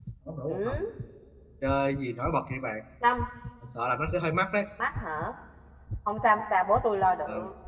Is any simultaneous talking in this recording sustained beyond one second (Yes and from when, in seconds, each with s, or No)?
No